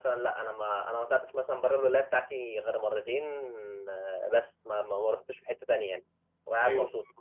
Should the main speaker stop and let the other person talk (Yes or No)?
Yes